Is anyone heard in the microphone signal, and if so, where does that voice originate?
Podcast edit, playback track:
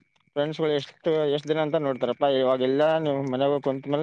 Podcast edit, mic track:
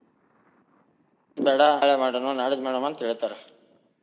user only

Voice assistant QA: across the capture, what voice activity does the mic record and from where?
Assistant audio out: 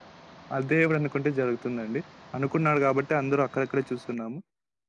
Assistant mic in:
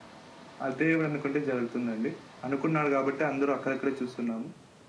echo only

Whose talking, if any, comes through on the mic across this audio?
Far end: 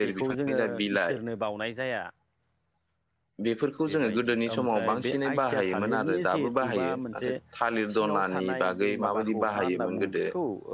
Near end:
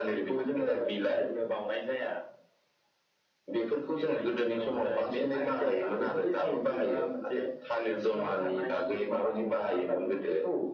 echo only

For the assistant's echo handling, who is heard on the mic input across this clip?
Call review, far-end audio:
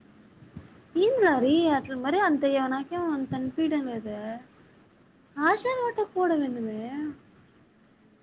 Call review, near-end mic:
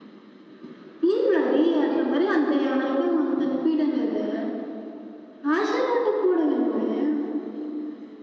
echo only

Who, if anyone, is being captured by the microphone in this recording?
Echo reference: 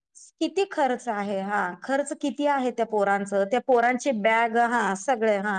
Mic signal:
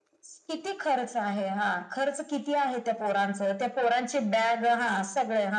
echo only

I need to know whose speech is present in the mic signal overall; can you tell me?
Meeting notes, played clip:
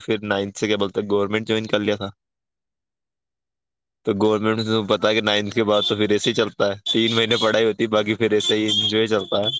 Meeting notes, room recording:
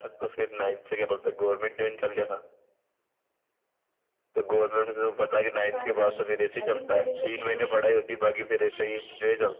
both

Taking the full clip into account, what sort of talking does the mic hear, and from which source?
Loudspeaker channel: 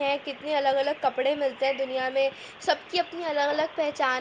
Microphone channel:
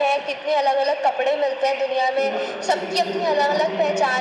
both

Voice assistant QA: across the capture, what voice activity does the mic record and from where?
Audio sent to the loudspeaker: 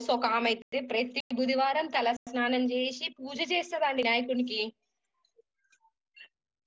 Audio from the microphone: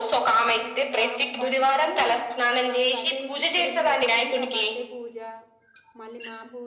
both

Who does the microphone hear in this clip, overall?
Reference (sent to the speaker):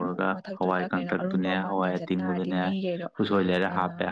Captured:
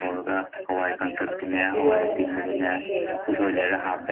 both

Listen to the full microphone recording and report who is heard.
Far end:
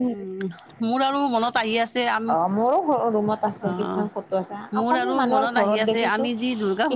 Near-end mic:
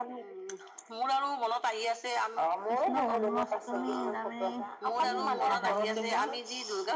both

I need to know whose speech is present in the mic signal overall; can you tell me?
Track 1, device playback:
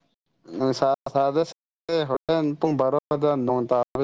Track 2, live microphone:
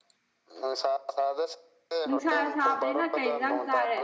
both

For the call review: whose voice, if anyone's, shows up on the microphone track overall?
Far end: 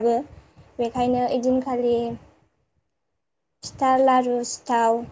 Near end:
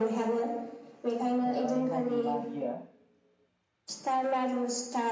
both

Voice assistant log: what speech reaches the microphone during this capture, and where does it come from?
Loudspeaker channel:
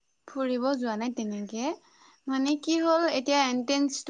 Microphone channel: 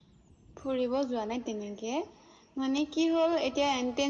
echo only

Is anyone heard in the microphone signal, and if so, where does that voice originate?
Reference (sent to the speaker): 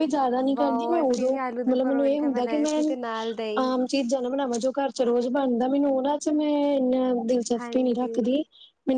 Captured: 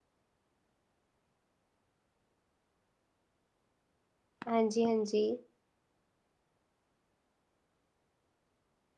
user only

